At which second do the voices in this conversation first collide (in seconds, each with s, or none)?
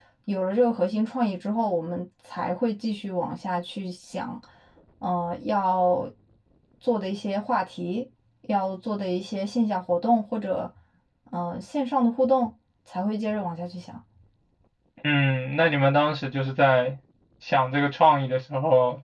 none